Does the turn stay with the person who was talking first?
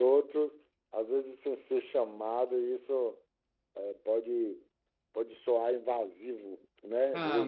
No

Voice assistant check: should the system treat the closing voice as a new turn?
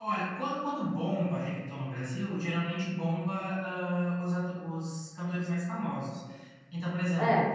No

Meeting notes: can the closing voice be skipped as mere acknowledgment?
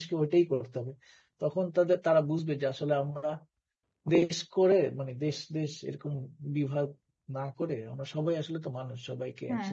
No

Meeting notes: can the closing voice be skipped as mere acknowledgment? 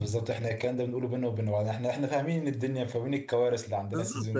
No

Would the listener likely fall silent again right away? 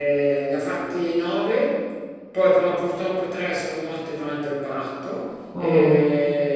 Yes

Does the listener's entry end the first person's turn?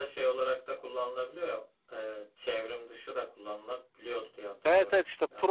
Yes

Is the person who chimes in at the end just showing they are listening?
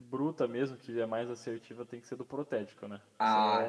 No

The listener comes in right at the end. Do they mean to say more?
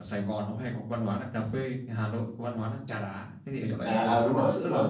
Yes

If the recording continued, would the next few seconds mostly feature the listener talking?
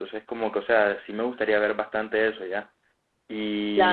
No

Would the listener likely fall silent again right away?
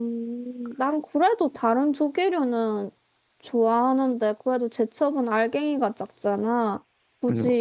Yes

